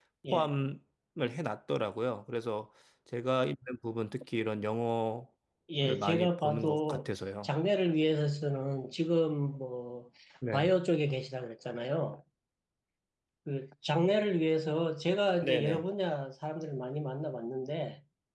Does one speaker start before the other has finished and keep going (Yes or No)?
Yes